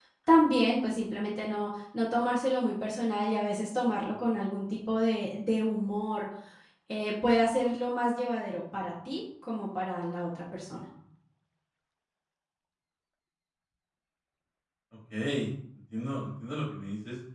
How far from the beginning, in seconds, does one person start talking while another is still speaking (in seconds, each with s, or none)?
none